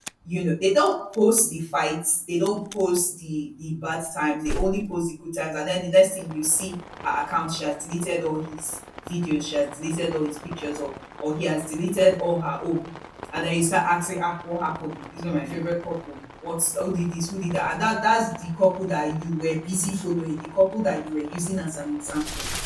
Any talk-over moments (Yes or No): No